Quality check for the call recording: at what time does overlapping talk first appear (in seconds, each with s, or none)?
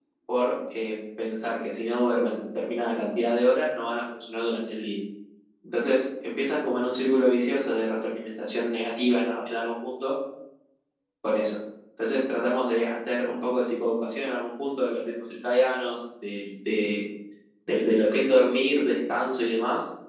none